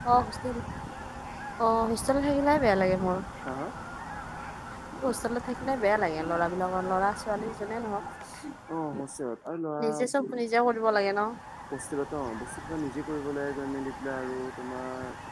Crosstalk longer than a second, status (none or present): none